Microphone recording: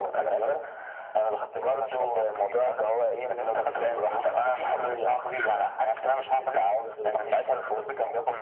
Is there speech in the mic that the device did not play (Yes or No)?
No